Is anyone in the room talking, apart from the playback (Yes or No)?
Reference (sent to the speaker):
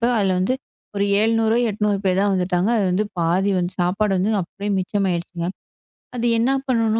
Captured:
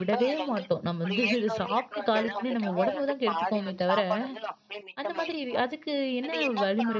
Yes